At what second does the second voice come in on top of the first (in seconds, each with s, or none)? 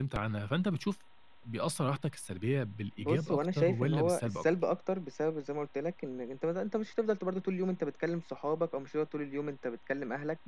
3.0 s